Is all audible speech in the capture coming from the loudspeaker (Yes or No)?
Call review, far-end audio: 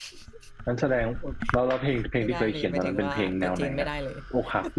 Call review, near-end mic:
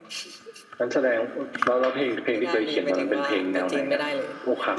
Yes